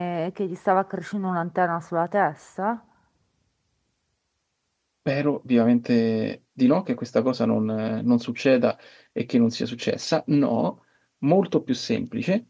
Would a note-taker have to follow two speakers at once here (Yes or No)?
No